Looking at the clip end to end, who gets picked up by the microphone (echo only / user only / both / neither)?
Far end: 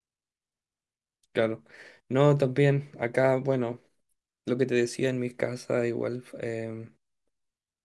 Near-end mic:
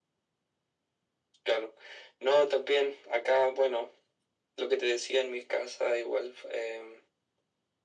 echo only